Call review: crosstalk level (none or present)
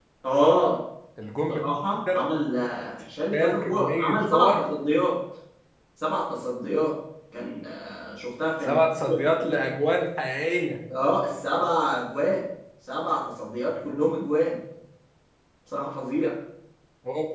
present